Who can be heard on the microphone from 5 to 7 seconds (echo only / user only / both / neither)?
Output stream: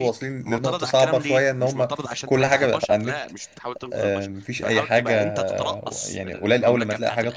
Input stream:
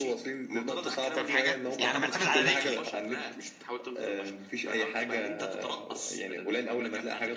echo only